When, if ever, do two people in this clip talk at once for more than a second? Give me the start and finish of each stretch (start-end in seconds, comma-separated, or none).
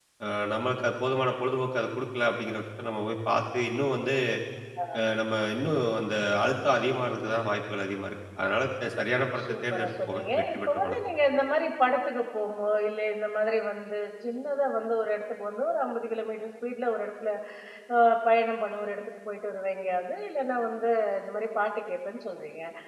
9.4-10.9